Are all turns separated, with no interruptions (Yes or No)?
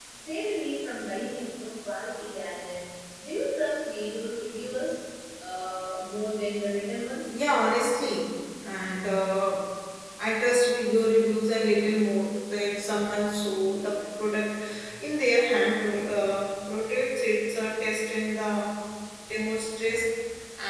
Yes